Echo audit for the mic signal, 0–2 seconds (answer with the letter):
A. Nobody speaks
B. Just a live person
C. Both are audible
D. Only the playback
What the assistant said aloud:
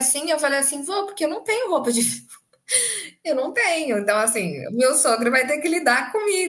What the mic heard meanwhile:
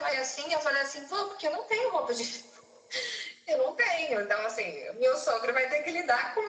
D